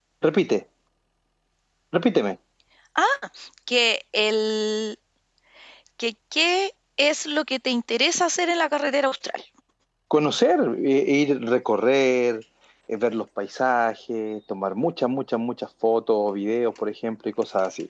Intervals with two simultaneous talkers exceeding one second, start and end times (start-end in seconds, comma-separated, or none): none